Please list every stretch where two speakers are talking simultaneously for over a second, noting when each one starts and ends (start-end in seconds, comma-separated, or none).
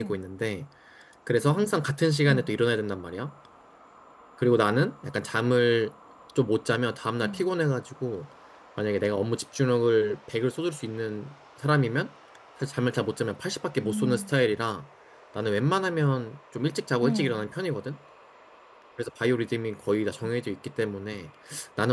none